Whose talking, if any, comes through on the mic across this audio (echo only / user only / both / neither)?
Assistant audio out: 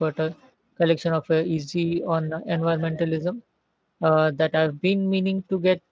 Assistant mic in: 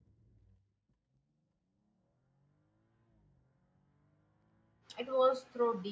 user only